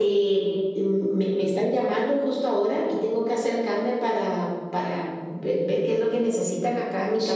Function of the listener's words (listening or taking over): taking over